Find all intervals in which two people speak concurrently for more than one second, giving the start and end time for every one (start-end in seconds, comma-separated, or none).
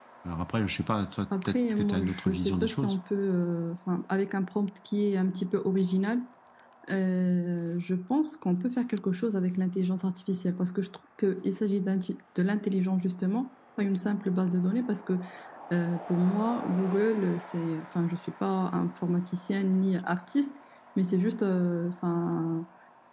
1.4-3.0